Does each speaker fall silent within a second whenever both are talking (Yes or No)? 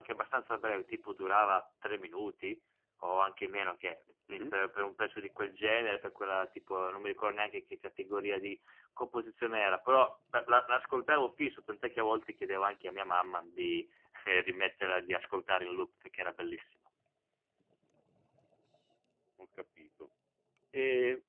Yes